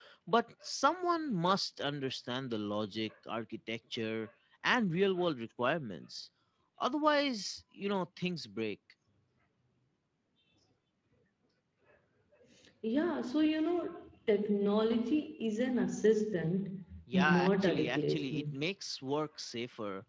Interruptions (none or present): present